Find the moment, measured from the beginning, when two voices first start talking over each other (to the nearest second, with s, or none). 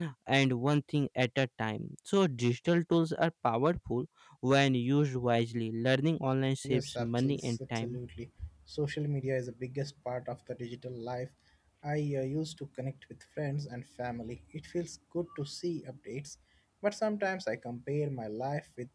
7 s